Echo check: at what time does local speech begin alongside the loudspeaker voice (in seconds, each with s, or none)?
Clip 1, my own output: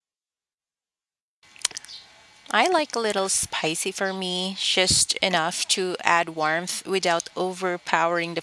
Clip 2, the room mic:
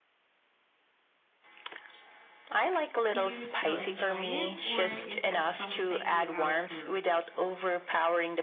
3.1 s